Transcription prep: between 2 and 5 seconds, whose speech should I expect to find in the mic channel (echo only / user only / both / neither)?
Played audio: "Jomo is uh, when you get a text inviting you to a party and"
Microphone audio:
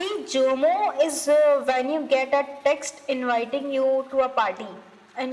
echo only